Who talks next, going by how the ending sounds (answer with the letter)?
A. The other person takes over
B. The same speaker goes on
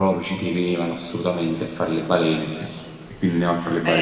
A